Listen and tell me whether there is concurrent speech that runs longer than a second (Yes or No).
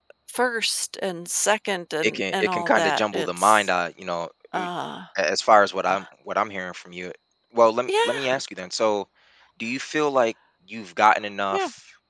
Yes